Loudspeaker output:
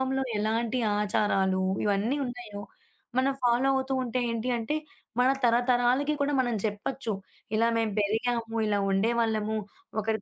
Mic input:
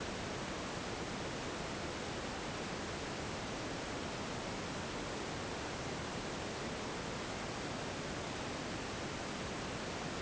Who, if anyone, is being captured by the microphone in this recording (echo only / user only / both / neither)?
neither